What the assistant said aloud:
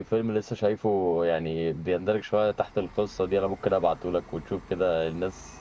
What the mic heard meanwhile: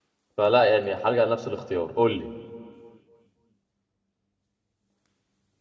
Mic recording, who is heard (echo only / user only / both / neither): user only